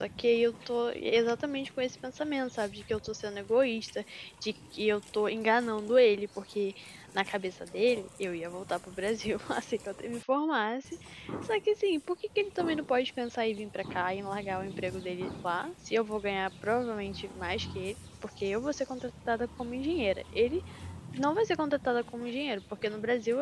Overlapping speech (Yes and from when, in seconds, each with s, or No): No